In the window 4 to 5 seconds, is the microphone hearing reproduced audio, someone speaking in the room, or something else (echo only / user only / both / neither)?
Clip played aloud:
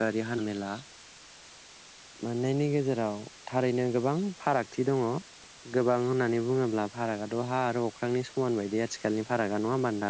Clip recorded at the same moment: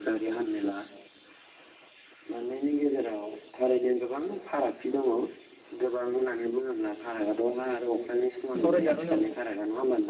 echo only